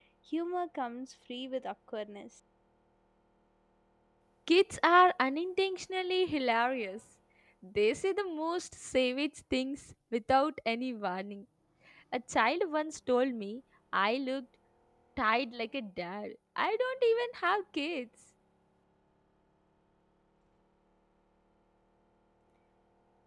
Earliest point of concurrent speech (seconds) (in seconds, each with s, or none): none